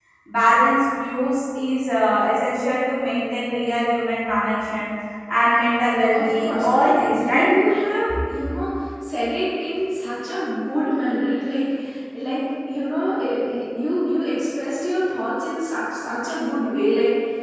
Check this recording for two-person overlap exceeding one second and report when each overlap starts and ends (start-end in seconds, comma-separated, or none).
6.1-7.5